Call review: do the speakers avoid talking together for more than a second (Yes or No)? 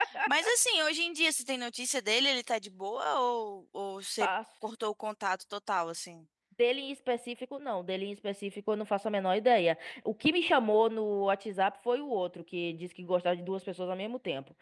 Yes